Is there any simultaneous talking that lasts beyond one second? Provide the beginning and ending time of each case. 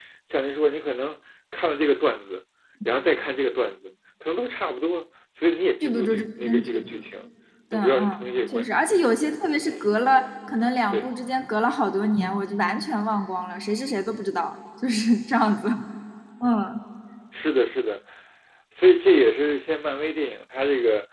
5.8-7.0

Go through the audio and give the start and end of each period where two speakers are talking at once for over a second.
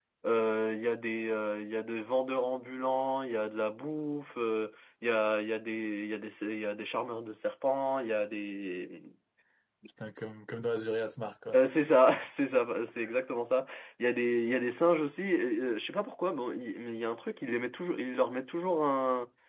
none

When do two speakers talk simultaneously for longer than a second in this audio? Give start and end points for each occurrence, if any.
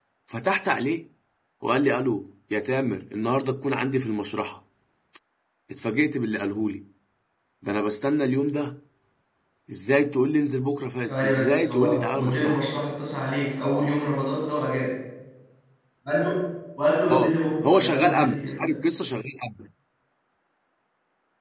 11.0-12.6, 17.1-18.7

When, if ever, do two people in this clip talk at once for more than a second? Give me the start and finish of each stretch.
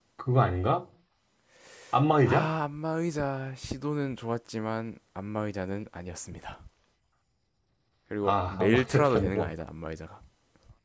8.2-9.5

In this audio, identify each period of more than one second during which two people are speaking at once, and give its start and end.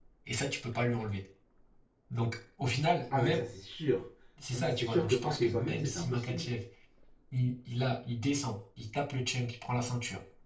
4.5-6.5

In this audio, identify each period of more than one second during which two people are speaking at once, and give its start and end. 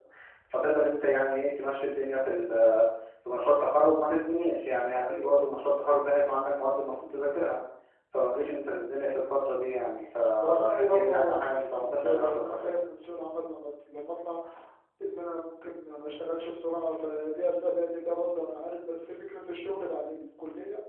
10.7-12.8

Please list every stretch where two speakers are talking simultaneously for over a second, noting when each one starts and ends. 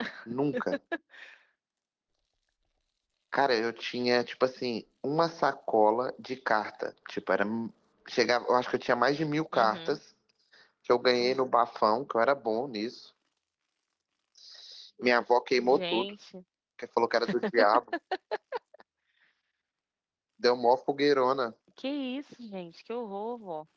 none

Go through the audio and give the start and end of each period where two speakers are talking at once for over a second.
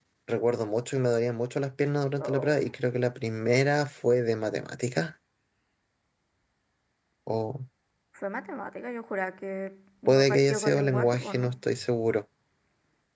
10.1-11.5

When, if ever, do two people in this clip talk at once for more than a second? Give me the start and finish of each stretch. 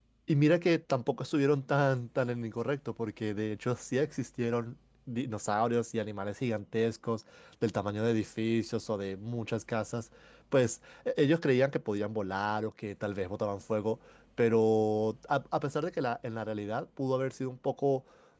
none

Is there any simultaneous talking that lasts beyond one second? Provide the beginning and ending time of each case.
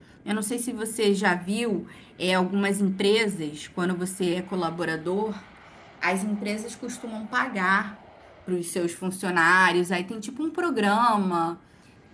none

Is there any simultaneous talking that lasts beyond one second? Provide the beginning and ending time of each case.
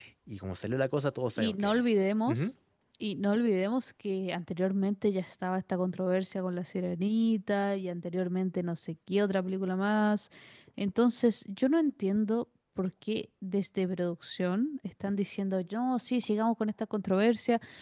none

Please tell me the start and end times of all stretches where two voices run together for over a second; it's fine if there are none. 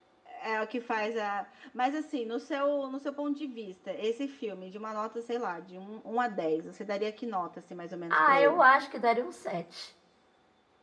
none

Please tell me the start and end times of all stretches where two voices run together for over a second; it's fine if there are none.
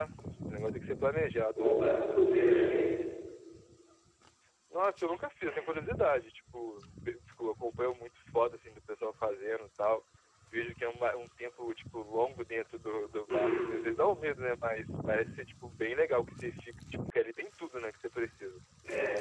none

